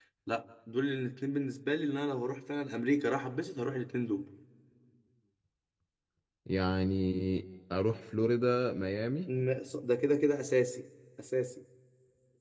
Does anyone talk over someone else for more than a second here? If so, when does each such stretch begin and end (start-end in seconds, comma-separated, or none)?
none